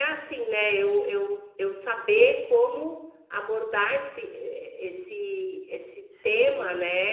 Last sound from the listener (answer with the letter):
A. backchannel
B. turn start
B